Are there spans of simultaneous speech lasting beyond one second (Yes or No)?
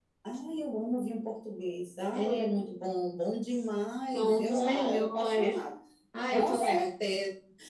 Yes